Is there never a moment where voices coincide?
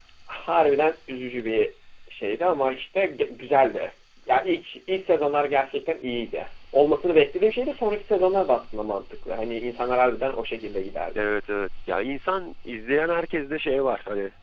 Yes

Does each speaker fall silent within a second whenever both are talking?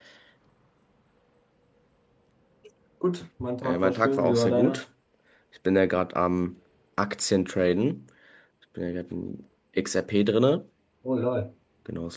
No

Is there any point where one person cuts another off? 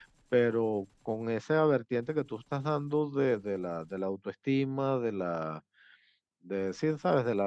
No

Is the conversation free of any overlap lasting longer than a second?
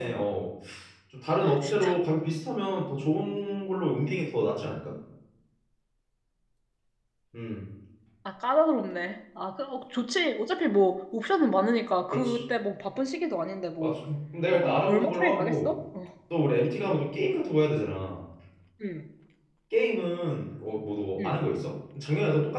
No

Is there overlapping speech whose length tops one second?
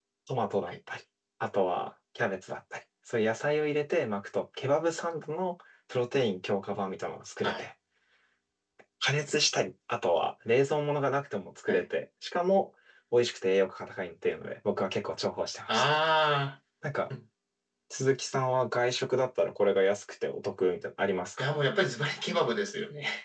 No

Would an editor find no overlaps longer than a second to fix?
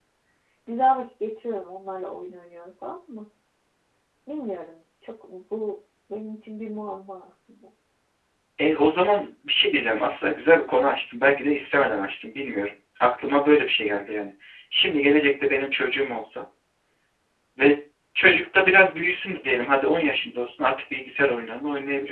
Yes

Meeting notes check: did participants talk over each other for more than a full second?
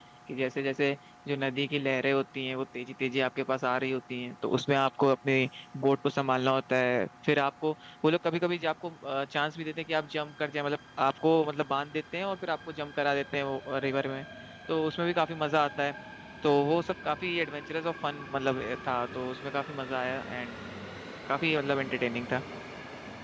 No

